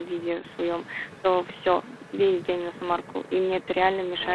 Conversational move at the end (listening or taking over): listening